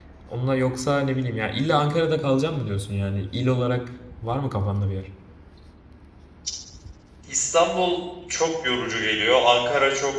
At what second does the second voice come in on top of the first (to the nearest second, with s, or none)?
none